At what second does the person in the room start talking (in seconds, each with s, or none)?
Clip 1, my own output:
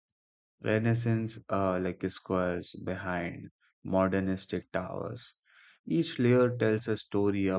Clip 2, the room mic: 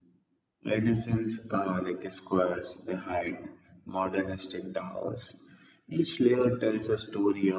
none